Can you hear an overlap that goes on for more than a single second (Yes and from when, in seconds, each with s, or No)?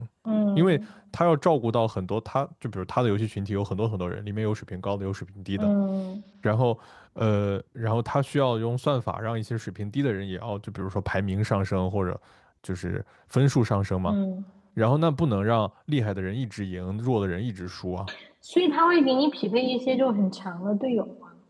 No